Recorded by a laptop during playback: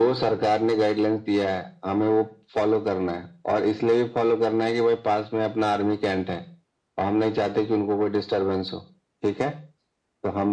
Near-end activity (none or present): none